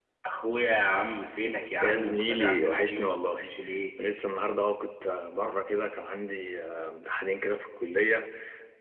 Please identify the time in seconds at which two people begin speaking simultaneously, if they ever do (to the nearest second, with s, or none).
2 s